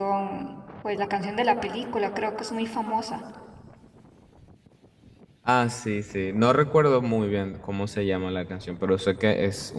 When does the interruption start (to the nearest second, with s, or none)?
none